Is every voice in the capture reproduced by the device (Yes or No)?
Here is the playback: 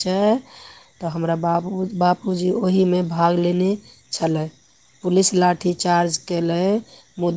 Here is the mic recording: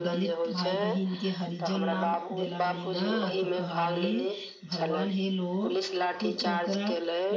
No